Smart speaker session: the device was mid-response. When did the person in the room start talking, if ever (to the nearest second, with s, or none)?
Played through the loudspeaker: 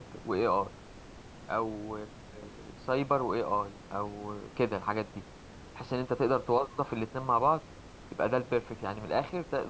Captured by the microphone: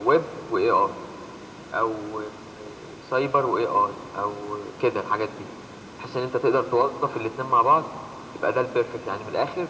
none